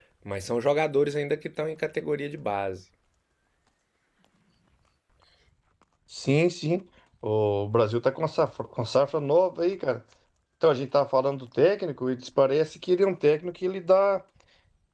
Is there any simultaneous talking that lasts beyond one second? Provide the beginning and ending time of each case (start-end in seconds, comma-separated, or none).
none